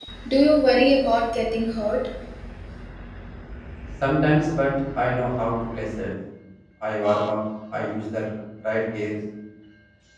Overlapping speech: No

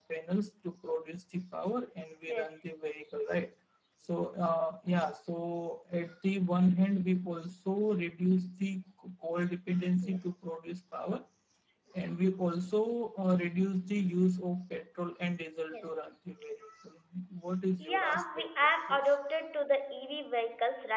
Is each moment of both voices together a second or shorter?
No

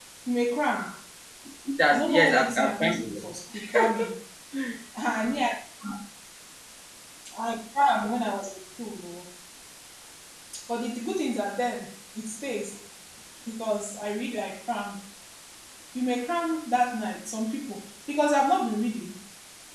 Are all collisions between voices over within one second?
No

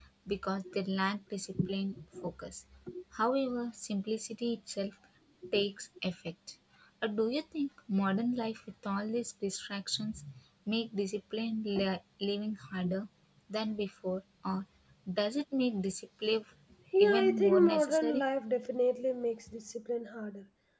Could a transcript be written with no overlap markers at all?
No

